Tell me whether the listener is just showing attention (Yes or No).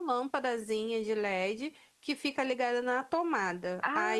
Yes